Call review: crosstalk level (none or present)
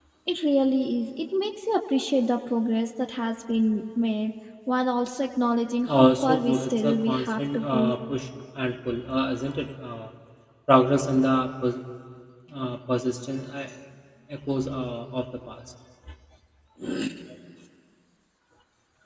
present